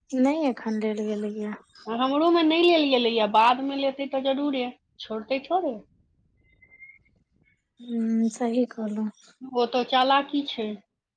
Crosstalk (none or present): none